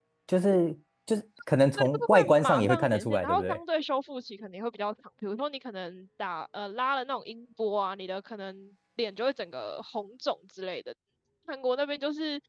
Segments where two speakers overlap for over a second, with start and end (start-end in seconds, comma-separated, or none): 1.8-3.6